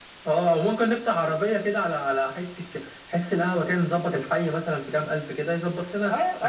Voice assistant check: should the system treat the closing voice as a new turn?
Yes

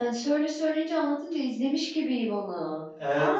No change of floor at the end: No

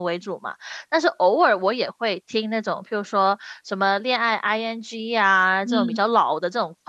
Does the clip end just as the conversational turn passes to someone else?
No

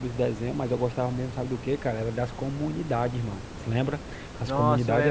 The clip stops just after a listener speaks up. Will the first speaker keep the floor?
No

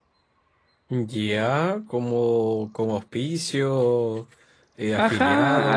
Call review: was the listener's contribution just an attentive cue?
No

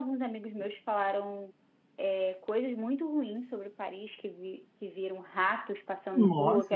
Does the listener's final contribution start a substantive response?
No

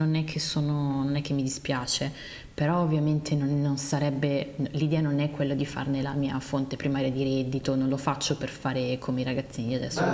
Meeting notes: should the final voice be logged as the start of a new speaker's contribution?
Yes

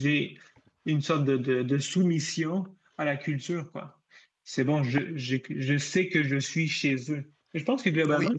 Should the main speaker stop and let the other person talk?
No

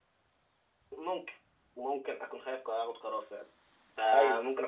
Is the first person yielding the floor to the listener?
No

